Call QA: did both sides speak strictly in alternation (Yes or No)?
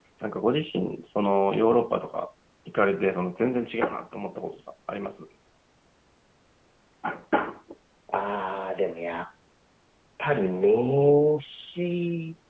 Yes